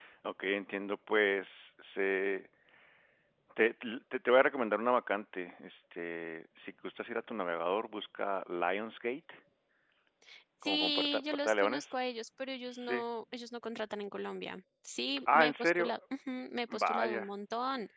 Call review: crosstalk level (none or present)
present